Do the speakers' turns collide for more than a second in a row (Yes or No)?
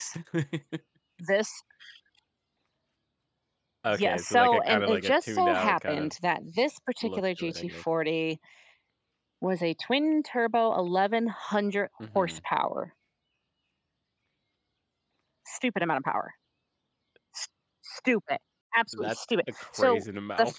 Yes